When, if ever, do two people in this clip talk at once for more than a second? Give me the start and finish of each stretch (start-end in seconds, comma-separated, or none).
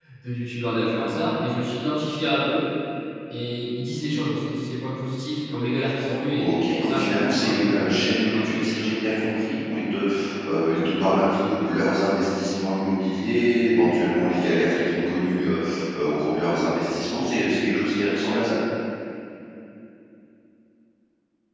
6.4-8.9